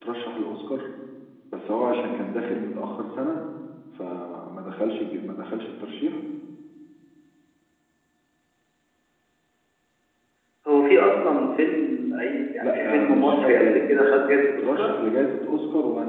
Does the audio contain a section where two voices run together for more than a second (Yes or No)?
Yes